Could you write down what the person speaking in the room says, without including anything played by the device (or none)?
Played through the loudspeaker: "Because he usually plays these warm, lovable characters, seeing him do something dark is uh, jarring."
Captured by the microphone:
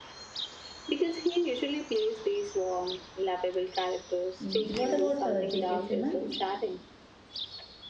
Mm, What about uh, J.K. Simmons?